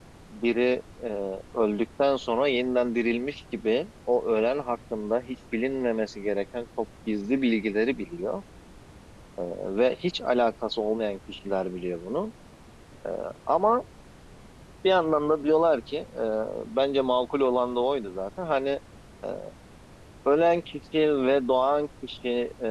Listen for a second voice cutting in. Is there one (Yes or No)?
No